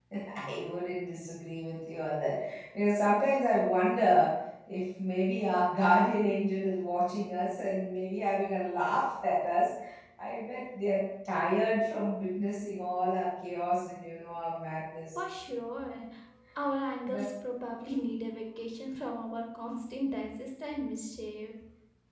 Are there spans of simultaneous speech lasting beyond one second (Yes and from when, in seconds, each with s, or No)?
No